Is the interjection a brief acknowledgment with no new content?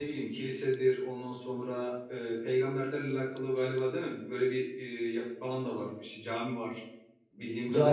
No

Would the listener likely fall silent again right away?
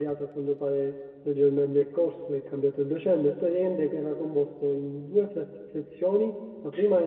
Yes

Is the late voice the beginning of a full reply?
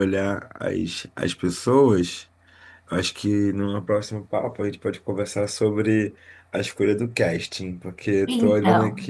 No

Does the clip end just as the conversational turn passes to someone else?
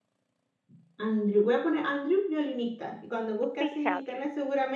No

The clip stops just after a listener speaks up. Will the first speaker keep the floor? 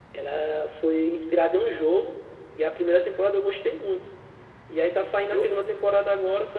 Yes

